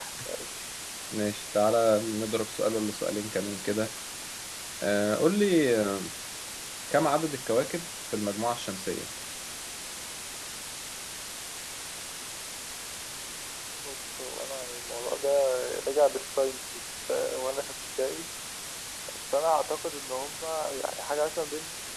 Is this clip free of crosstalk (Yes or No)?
Yes